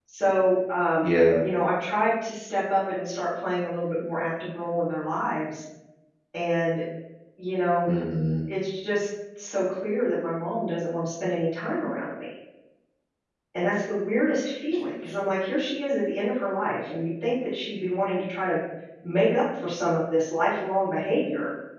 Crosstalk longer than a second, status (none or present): none